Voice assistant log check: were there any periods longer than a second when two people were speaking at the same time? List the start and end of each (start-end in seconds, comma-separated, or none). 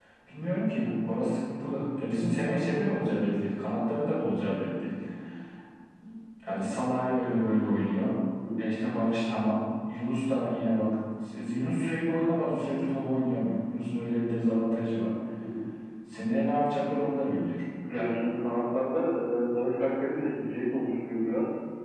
none